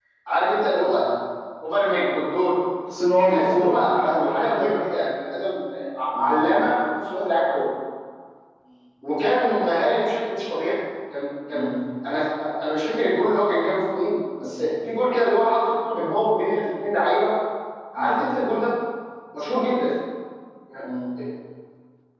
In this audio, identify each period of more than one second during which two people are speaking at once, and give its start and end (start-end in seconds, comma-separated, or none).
3.3-4.8